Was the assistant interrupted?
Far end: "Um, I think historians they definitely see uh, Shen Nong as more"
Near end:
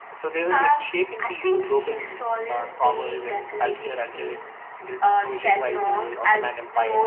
Yes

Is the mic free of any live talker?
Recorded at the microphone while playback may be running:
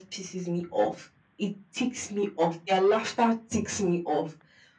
Yes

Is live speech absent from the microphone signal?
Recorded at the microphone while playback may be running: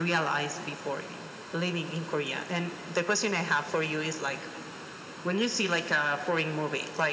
Yes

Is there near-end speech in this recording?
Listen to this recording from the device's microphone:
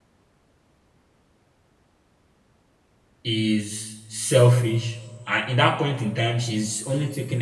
Yes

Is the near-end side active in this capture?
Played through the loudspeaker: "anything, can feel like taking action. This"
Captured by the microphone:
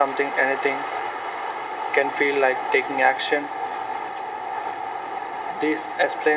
No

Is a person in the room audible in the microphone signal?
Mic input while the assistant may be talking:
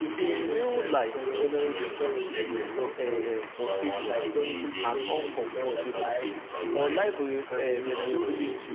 Yes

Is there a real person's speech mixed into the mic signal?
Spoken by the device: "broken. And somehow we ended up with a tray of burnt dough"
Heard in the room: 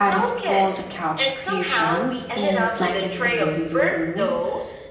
Yes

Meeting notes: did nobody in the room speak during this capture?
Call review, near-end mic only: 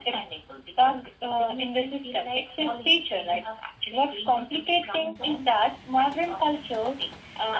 Yes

